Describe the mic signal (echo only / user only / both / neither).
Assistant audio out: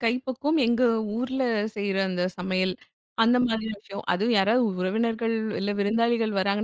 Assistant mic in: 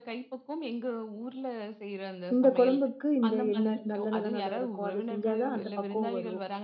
both